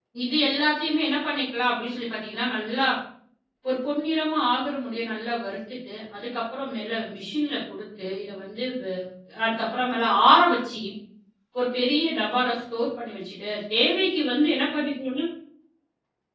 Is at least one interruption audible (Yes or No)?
No